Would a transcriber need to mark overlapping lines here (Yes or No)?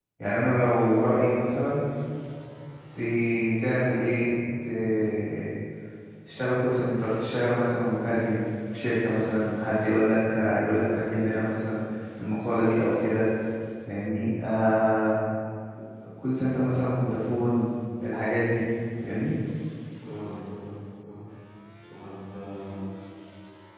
No